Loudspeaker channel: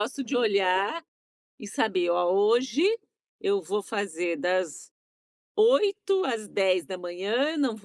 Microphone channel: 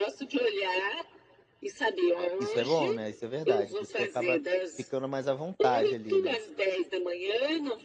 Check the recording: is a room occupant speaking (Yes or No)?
Yes